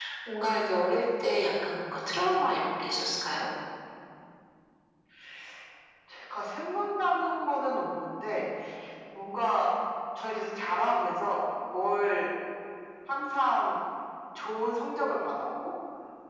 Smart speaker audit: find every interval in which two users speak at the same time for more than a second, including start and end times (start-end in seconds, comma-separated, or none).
none